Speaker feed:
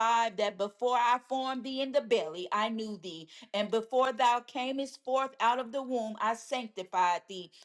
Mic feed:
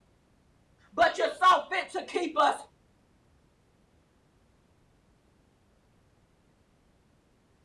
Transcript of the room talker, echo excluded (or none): but you saw fit to keep us.